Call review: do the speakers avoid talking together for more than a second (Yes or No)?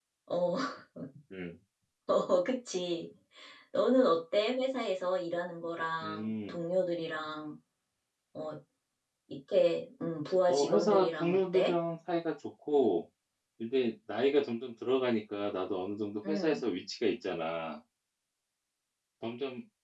No